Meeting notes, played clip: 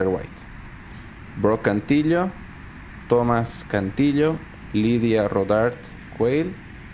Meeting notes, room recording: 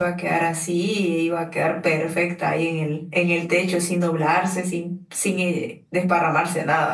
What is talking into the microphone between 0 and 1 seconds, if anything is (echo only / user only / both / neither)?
user only